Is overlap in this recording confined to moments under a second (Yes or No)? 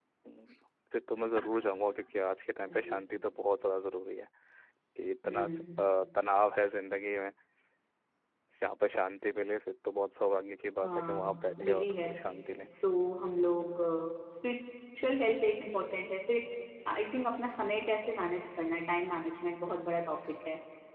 No